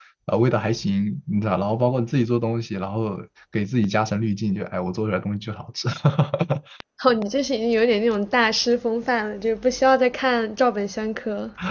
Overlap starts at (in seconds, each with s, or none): none